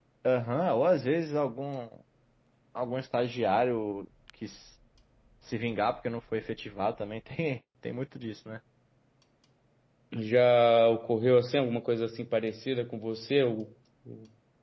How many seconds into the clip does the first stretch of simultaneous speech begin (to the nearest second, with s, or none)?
none